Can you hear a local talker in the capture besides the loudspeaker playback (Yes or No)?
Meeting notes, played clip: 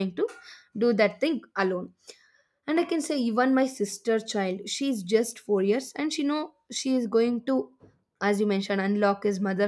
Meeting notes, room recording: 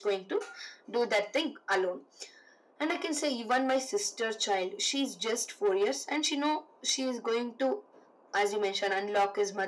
No